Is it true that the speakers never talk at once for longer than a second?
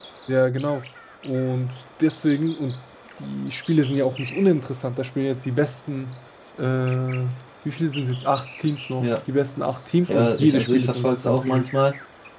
No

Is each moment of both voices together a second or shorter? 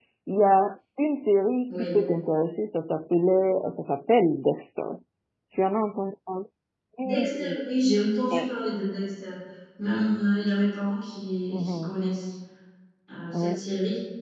Yes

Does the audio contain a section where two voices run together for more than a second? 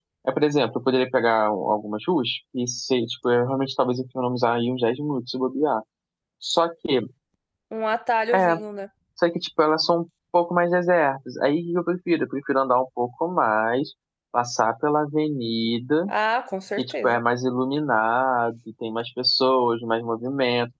No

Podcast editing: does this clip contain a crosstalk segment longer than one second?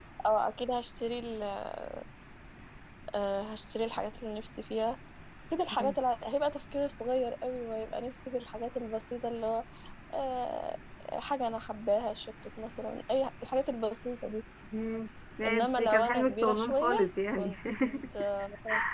Yes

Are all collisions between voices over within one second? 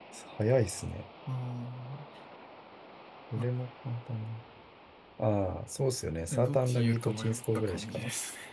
No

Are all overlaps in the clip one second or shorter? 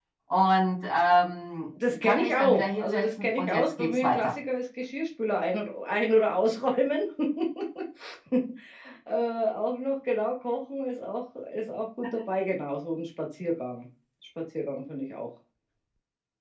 No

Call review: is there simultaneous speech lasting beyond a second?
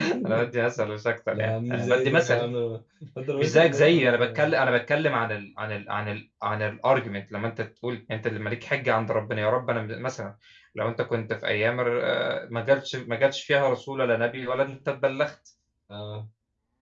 Yes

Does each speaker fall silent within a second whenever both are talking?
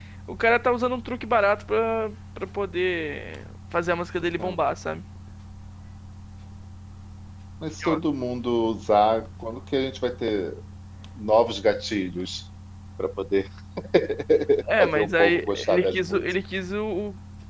No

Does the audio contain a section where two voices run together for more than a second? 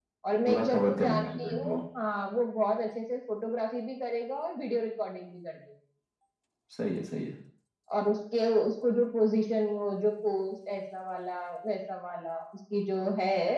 Yes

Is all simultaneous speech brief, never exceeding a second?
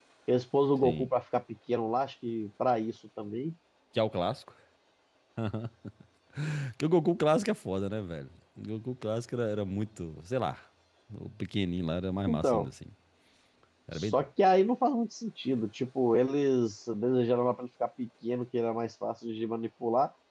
Yes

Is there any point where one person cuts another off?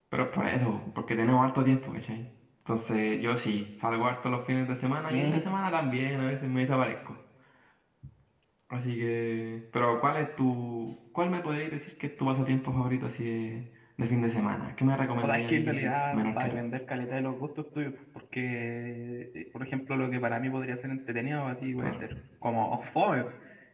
Yes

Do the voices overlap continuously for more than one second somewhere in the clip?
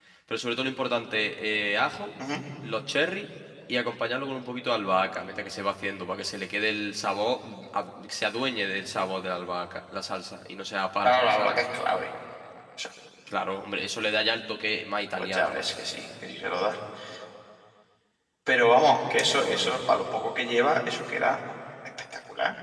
No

